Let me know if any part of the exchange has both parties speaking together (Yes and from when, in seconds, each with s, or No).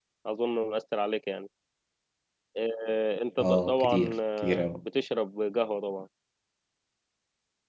Yes, from 3.4 s